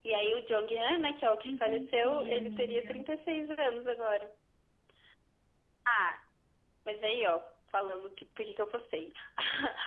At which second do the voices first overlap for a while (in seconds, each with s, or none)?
1.4 s